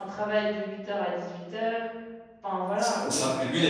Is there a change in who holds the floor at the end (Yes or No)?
Yes